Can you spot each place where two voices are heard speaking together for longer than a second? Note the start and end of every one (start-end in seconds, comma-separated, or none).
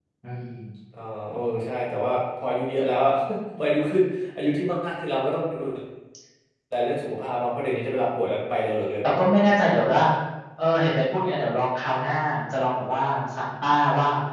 none